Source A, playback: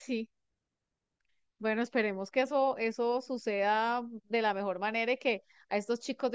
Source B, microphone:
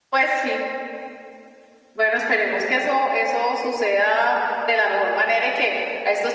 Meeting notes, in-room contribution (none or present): none